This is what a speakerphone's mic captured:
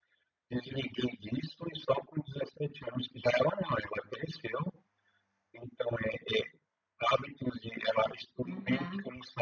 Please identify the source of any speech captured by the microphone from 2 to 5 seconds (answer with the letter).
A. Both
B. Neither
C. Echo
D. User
C